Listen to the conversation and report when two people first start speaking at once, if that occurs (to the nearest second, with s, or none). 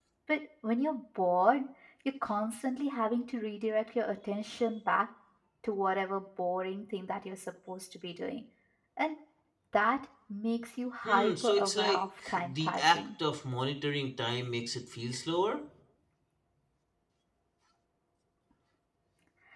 11 s